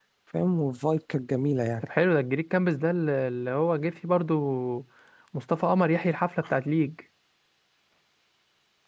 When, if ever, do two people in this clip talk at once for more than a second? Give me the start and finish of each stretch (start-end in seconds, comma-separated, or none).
none